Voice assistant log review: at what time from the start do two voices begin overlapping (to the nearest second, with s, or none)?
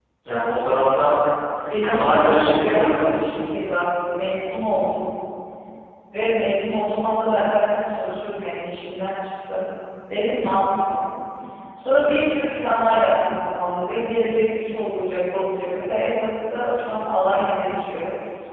2 s